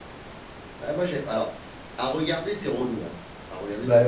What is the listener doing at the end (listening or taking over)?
taking over